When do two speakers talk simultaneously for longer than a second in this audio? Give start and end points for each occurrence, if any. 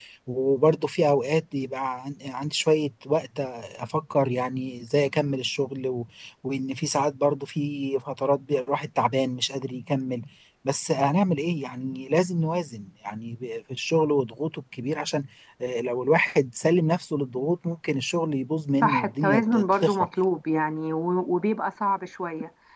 18.8-20.1

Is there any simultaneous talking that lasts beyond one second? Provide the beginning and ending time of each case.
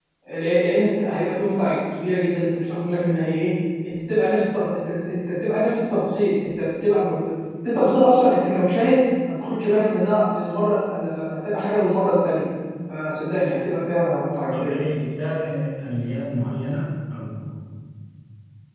none

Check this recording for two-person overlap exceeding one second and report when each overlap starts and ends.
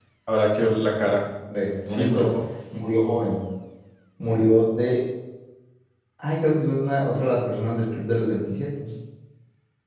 none

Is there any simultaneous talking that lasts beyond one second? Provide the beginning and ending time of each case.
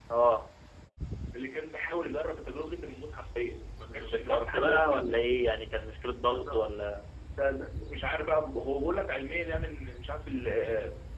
3.9-5.1

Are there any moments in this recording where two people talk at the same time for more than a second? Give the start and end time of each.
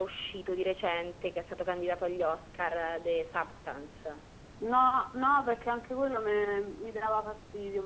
none

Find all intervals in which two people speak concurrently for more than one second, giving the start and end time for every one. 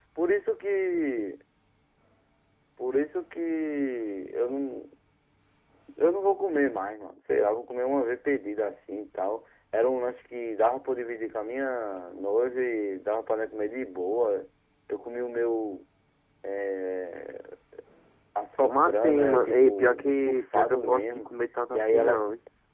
18.6-21.3

